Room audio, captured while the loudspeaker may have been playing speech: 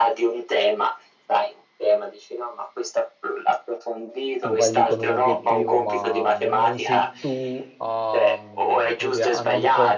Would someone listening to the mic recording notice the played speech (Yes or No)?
Yes